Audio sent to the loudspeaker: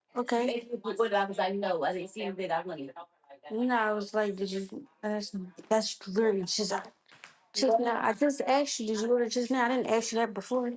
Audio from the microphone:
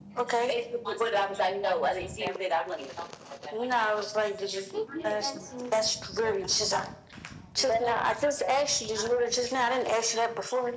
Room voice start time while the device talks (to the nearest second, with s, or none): 5 s